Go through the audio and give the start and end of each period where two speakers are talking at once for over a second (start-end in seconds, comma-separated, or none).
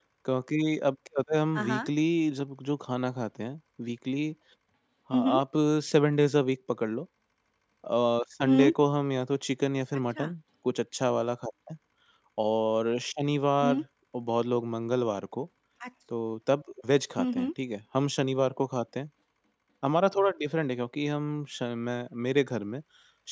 none